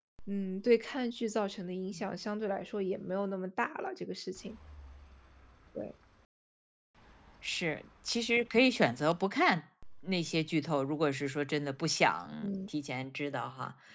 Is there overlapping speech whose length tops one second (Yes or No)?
No